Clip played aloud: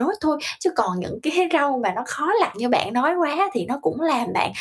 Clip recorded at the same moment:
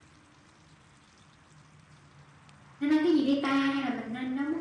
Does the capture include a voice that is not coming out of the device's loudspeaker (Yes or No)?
Yes